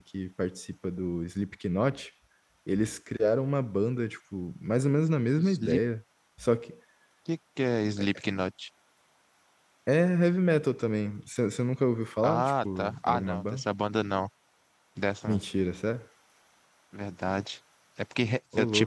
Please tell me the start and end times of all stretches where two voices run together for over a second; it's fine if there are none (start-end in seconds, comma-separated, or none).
12.2-13.6